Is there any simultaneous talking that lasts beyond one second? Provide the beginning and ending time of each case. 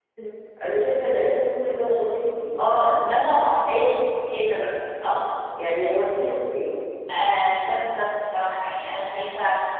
none

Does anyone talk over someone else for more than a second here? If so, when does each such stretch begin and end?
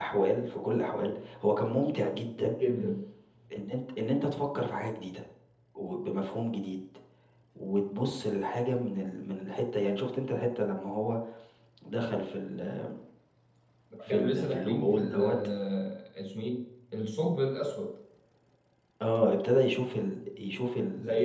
14.1-15.3

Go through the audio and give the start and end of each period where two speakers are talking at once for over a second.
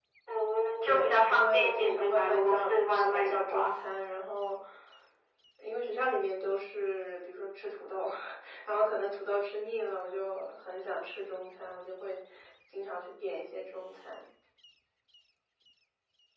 0.8-3.7

